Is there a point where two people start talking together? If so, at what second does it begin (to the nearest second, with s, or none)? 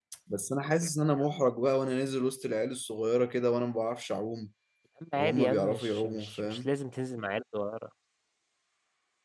5 s